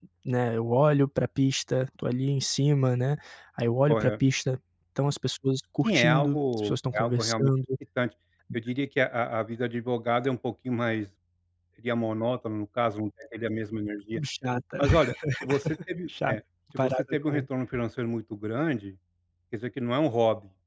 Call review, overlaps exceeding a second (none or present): present